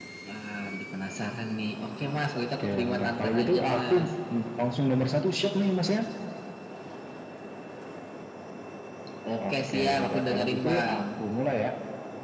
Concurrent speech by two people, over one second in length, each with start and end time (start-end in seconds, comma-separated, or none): 2.6-3.9, 9.5-11.0